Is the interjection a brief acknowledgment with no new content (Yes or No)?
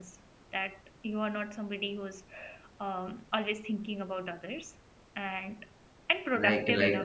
No